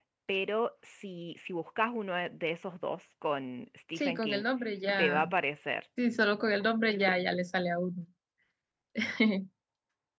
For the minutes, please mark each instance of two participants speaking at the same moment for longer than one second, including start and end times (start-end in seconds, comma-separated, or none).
none